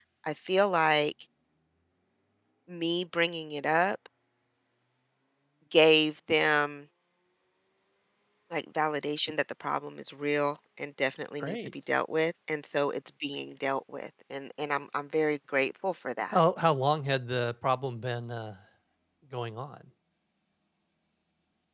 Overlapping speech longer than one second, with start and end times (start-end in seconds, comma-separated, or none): none